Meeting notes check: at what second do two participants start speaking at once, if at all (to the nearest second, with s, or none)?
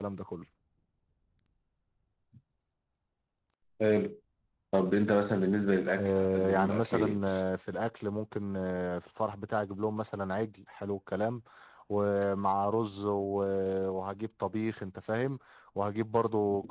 6 s